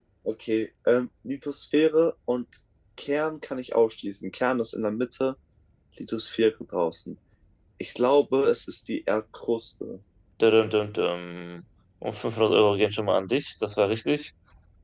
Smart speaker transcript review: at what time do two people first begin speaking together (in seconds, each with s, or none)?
none